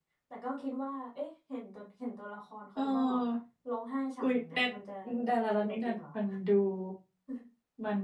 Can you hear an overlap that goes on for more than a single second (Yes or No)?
No